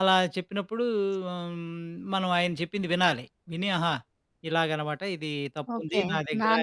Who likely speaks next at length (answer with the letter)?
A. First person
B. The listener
B